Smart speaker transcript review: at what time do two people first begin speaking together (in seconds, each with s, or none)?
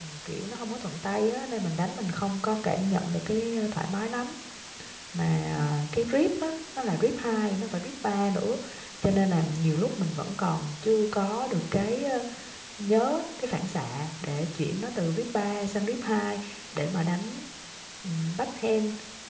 none